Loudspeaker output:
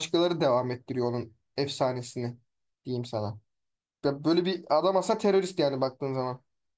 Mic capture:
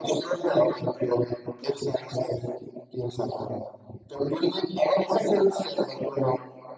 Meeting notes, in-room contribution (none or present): none